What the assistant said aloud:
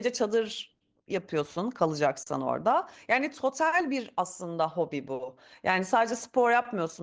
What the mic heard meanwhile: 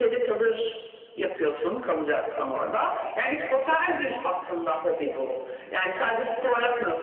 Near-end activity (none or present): none